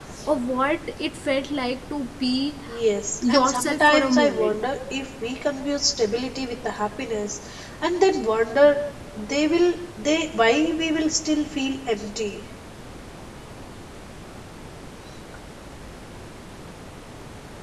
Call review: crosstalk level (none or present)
present